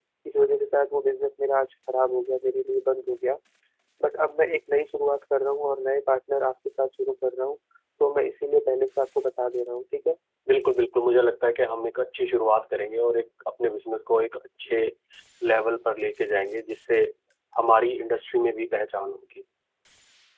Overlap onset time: none

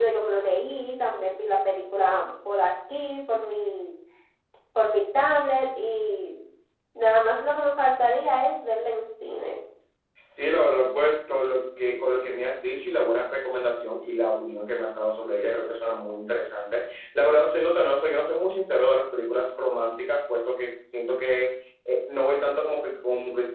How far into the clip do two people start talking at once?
none

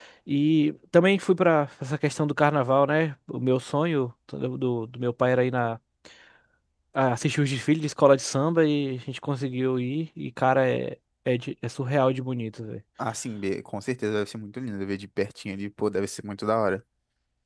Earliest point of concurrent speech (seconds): none

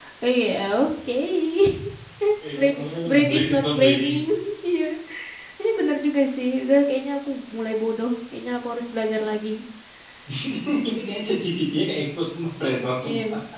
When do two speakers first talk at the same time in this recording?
3 s

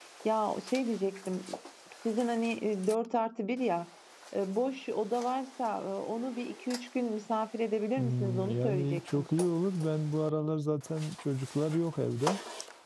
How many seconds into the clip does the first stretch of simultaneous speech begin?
8 s

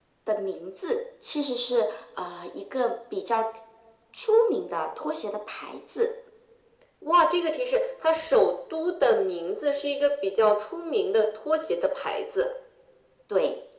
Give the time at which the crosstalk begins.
none

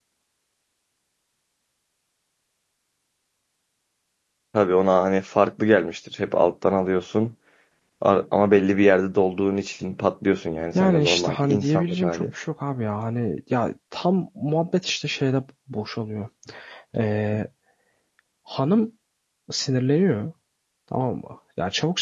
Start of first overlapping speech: 11 s

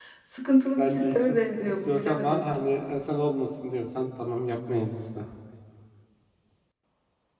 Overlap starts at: 1 s

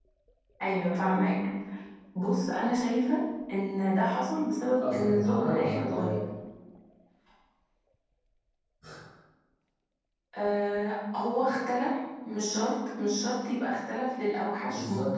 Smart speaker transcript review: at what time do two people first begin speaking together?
5 s

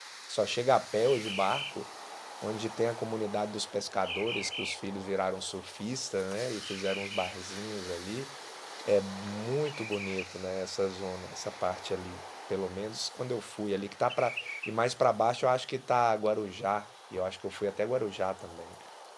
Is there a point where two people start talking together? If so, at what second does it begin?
none

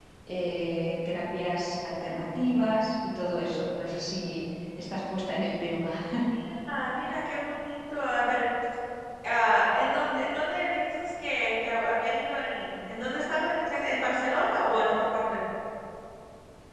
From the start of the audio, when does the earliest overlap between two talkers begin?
none

